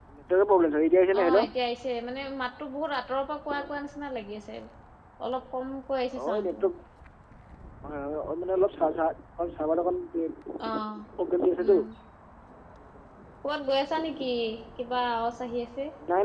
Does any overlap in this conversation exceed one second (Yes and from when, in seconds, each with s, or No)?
No